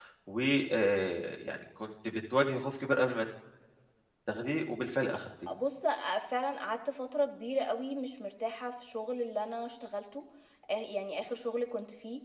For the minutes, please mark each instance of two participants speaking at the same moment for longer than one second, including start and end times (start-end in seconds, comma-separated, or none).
none